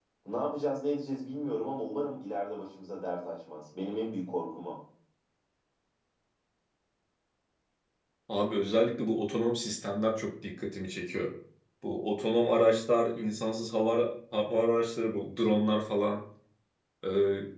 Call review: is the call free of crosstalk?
Yes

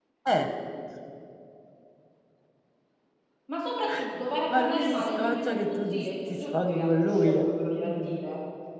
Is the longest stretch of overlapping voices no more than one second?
No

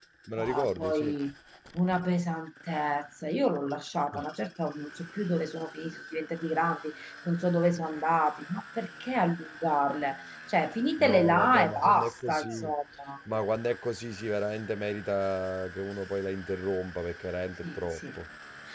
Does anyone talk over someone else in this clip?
Yes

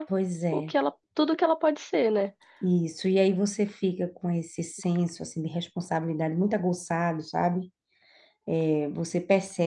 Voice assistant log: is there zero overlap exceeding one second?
Yes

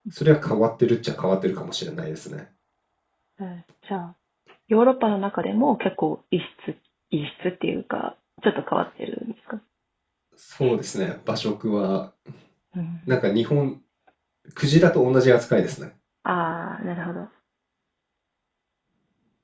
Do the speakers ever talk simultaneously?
No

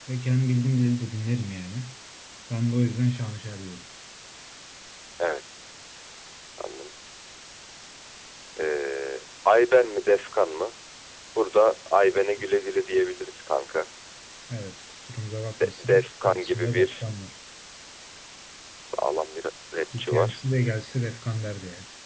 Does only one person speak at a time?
No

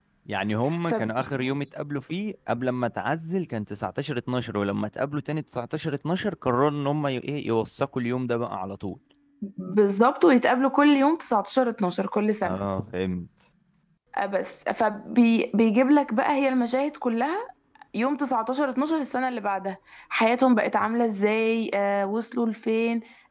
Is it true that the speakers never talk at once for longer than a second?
Yes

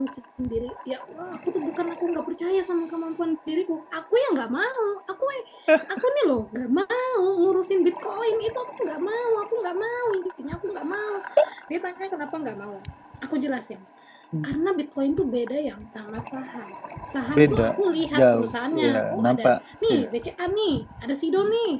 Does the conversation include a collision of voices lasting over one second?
Yes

